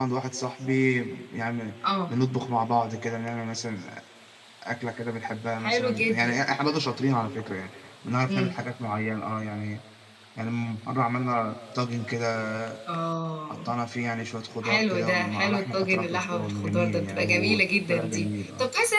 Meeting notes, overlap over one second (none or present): present